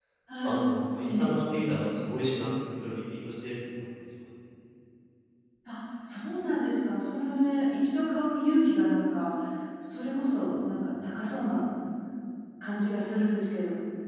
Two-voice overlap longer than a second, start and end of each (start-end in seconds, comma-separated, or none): none